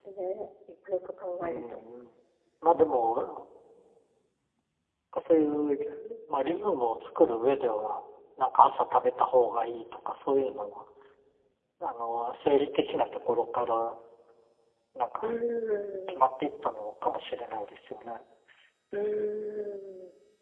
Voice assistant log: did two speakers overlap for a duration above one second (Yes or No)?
No